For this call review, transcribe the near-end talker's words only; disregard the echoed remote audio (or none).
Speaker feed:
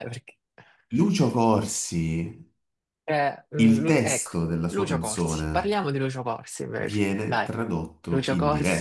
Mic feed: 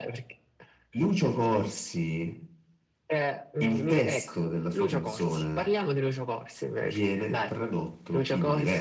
none